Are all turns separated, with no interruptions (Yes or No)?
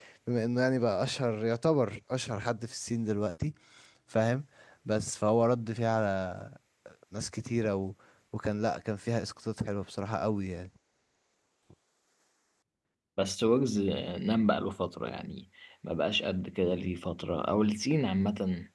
Yes